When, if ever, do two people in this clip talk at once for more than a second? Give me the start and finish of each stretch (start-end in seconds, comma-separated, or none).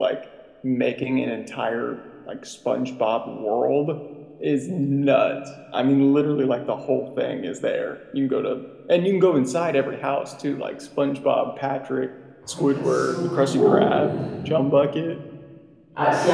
12.5-14.5